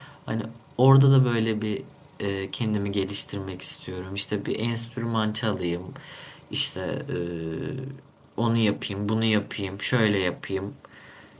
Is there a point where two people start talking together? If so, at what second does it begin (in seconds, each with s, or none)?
none